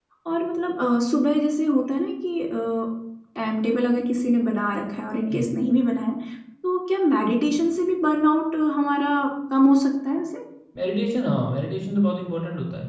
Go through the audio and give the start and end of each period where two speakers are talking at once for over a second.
none

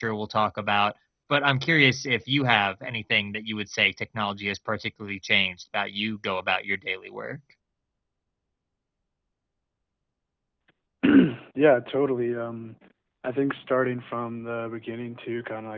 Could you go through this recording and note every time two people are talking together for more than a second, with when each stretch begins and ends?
none

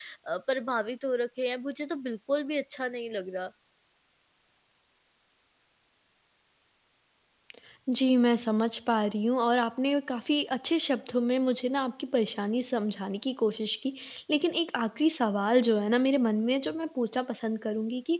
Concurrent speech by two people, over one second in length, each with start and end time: none

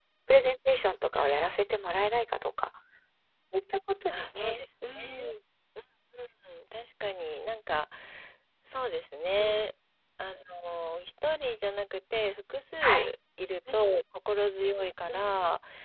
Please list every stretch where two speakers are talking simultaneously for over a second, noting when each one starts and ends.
4.1-5.3

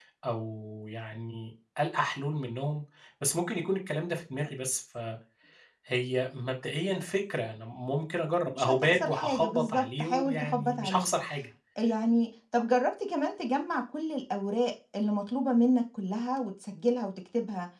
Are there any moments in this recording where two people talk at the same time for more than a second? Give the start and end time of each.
8.5-11.1

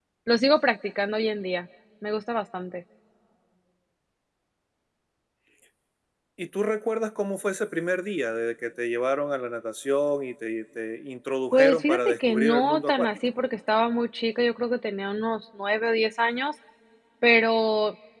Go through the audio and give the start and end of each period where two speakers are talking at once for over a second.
11.5-13.1

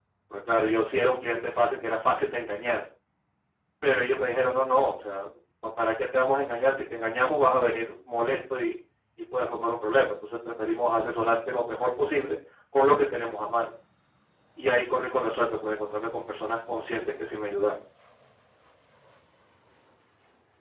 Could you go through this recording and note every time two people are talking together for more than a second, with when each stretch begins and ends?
none

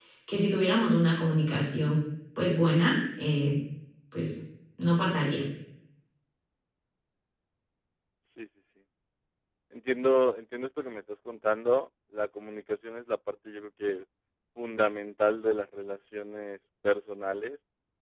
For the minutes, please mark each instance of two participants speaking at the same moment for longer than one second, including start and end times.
none

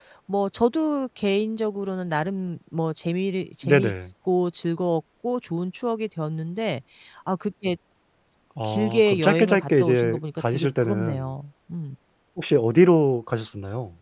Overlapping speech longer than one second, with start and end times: 8.6-11.3

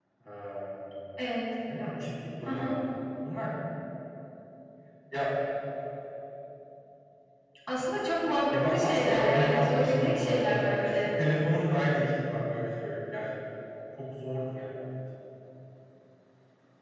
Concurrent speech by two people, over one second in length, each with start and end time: 8.7-11.1

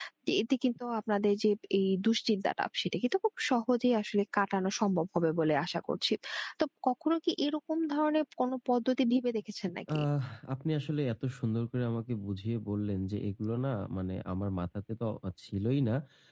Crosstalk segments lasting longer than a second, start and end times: none

